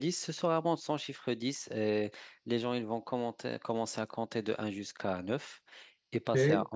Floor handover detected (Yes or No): No